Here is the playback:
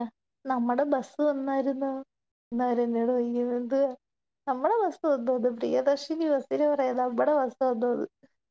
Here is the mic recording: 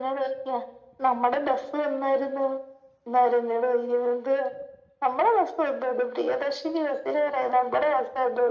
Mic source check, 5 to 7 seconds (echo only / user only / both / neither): echo only